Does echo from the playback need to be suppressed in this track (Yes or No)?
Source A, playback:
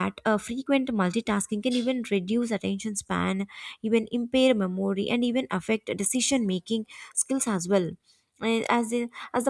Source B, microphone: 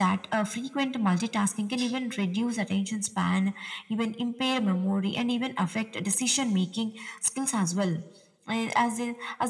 Yes